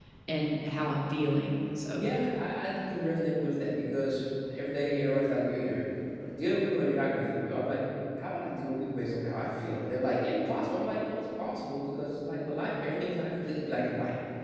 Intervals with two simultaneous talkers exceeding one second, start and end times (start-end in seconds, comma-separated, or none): none